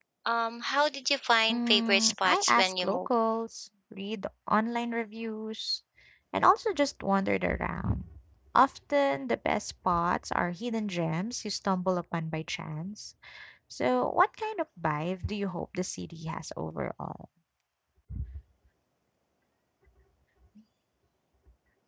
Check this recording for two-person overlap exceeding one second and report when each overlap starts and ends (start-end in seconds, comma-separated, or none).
1.5-3.1